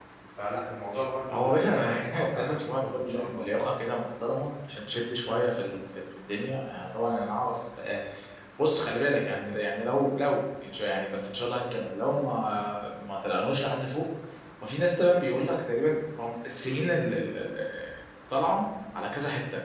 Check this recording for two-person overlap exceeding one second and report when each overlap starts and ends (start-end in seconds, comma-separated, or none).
1.3-3.4